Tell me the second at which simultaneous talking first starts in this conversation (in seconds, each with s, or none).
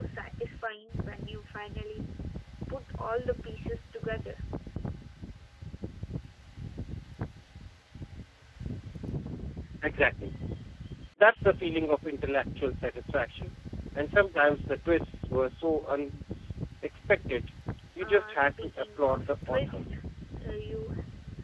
18.0 s